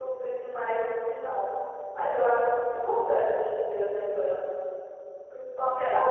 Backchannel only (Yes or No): Yes